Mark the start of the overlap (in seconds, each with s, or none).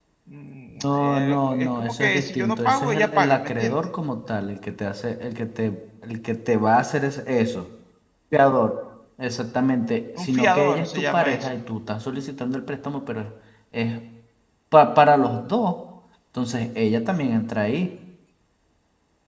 0.8 s